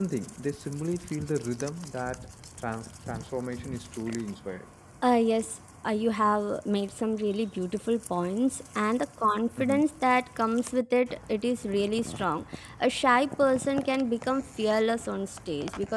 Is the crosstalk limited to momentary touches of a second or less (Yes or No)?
Yes